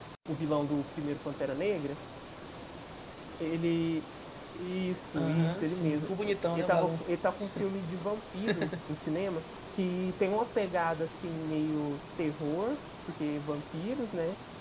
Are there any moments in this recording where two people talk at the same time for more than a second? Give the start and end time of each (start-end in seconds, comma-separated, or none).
5.2-7.0